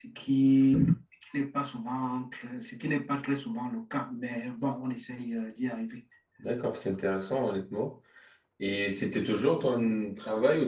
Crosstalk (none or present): none